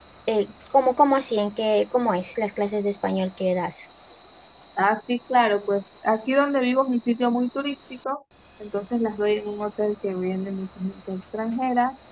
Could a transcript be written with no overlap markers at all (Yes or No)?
Yes